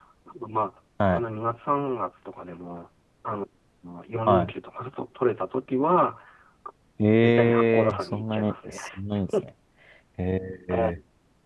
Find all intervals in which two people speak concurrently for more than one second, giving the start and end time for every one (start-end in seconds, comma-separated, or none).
7.2-8.8